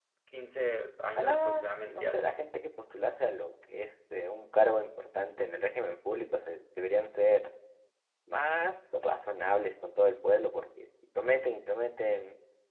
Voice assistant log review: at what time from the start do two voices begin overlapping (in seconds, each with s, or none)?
1.2 s